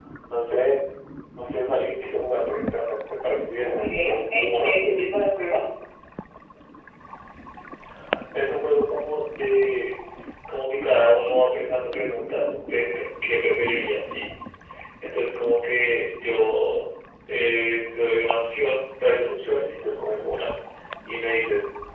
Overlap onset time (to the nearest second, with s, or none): 4 s